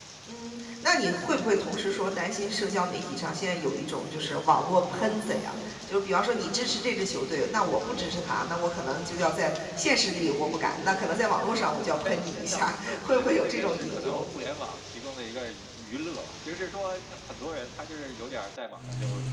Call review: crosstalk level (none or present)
present